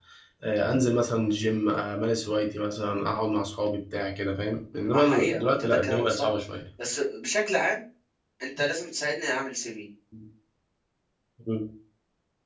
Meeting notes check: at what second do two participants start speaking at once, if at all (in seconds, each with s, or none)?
4.9 s